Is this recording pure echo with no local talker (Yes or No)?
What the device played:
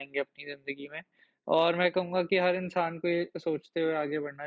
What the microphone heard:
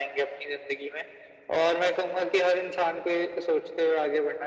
Yes